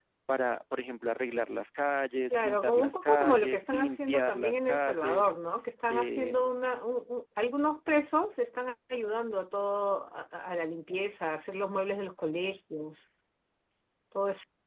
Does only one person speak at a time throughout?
No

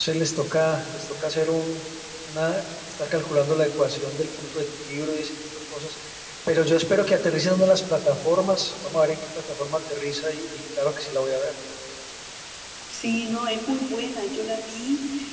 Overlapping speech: No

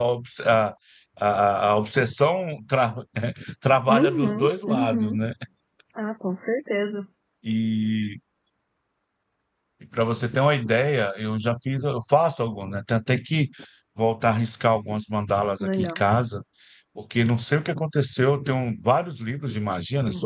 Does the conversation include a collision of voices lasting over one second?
Yes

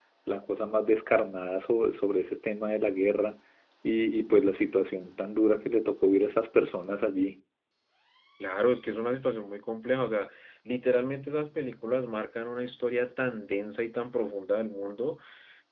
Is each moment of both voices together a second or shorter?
Yes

